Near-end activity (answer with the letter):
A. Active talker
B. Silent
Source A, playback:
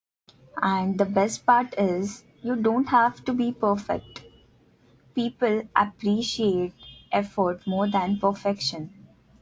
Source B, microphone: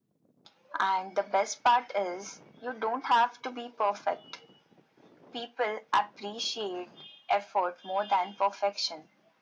B